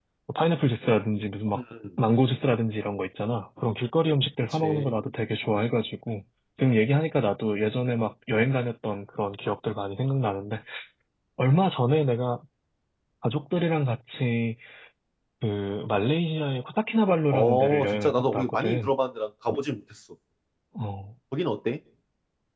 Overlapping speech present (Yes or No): Yes